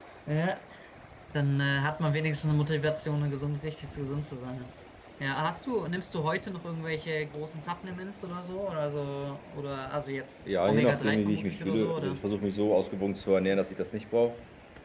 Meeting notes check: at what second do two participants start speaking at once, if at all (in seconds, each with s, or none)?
10.7 s